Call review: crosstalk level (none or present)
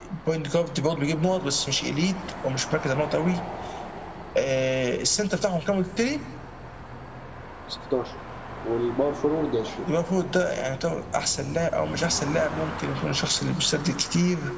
none